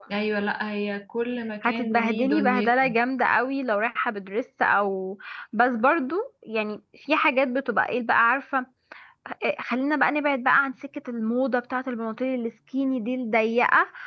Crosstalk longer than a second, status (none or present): present